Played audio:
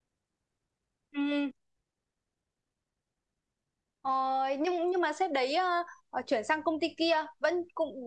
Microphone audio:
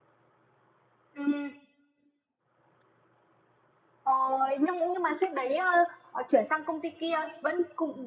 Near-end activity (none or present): none